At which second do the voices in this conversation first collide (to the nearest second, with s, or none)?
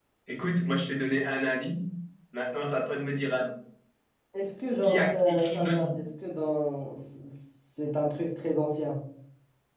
5 s